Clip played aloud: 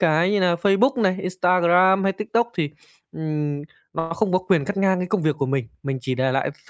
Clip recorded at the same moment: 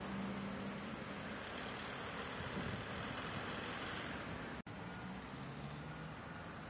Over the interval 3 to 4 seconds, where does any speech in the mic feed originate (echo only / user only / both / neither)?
neither